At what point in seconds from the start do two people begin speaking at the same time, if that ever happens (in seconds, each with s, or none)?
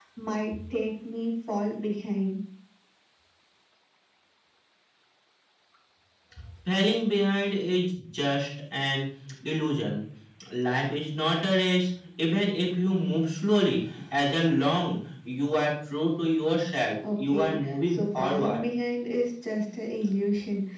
17.0 s